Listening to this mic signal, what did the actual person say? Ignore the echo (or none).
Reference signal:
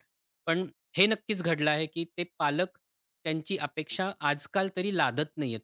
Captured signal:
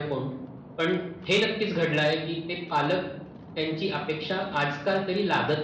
none